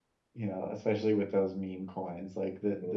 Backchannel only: Yes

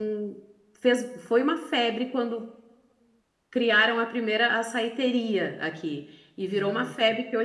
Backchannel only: Yes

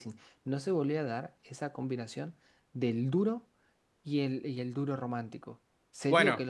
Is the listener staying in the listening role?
Yes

